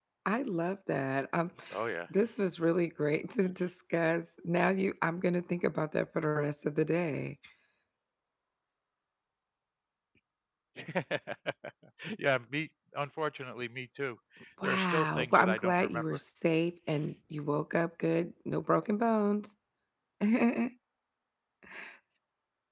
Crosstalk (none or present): present